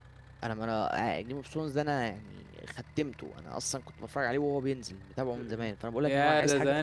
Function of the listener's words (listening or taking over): taking over